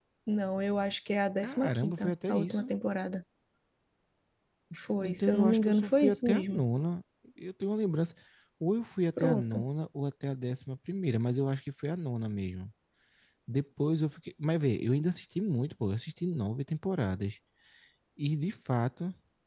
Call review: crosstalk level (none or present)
present